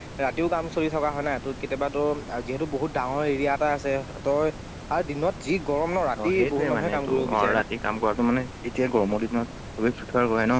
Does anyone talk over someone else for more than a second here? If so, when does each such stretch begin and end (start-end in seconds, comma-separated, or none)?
6.2-7.6